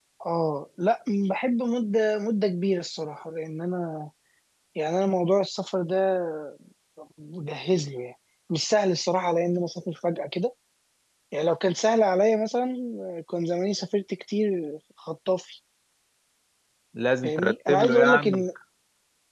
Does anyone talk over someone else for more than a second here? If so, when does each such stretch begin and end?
17.2-18.4

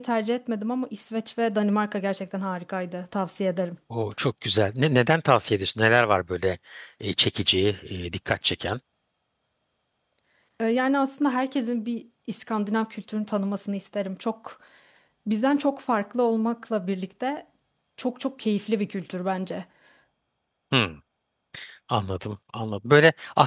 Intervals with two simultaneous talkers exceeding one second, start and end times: none

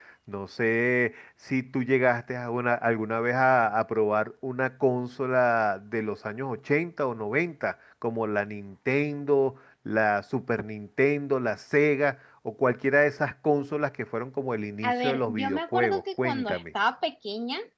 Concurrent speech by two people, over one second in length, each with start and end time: 14.8-16.6

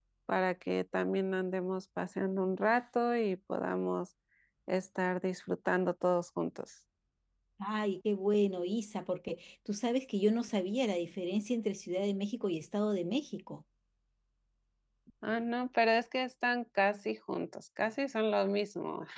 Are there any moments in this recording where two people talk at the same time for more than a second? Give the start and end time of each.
none

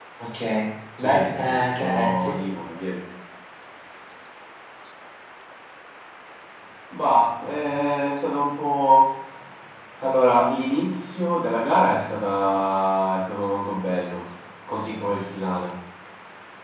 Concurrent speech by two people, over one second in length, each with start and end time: 1.0-2.3

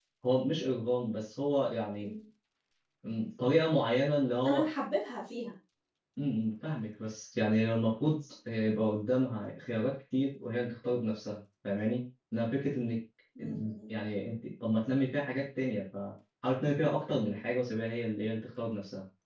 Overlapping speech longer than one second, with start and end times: none

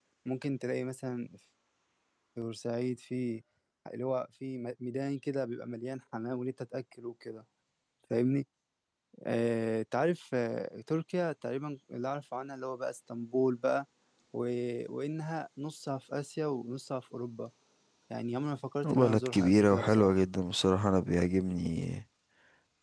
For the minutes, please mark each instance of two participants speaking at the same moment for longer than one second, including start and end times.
18.8-20.2

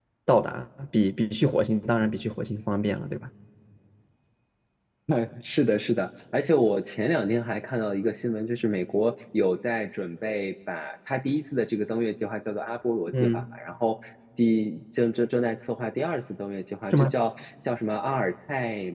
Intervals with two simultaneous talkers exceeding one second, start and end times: none

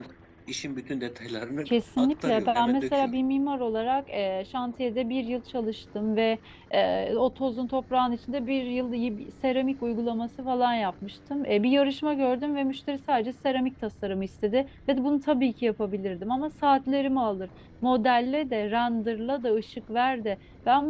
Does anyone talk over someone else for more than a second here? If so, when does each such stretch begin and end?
1.7-3.1

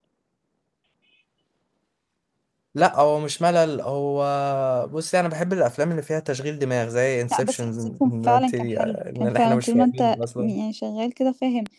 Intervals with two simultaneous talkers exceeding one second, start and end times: 7.3-10.0

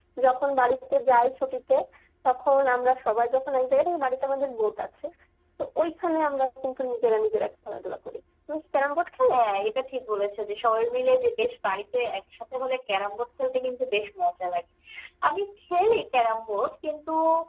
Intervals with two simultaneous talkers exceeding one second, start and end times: none

